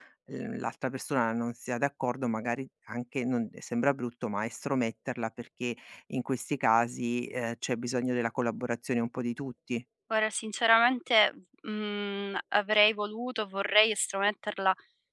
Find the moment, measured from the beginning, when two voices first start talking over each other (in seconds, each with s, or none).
none